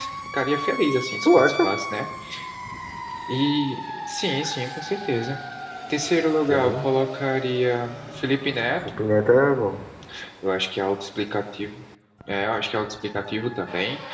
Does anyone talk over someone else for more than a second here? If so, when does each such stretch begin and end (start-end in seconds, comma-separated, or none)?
none